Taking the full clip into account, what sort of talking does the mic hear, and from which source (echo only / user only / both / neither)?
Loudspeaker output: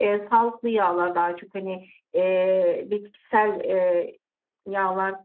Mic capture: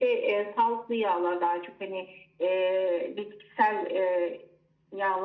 echo only